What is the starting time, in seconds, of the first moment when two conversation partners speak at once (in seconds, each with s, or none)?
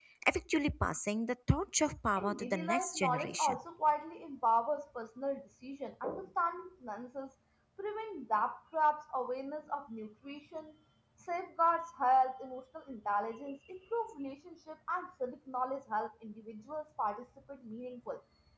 2.2 s